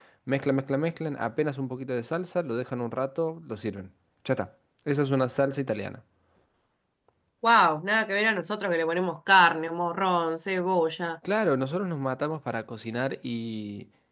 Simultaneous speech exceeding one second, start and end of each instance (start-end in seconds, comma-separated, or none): none